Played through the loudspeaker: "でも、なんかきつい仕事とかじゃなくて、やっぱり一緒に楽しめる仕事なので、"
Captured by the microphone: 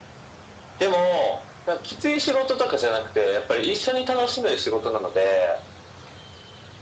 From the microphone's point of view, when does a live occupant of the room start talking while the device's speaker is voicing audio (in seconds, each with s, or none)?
none